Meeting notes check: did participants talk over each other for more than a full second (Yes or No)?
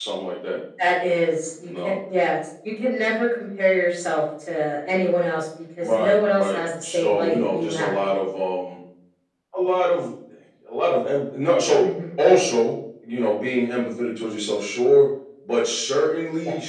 Yes